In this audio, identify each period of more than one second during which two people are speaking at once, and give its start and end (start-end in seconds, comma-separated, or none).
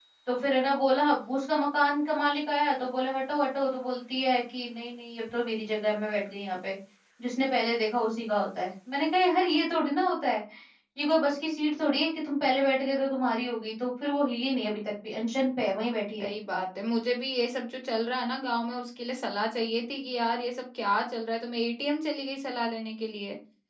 none